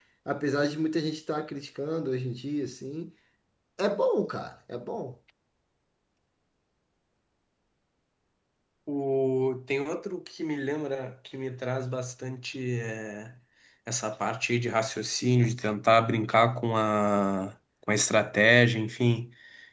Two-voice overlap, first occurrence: none

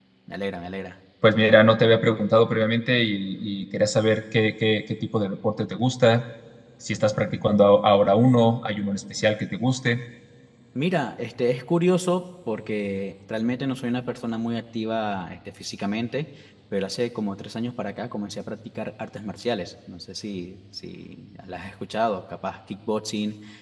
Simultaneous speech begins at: none

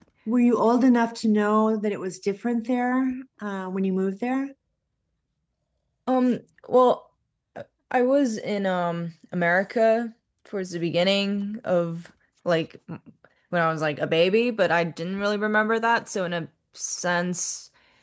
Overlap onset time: none

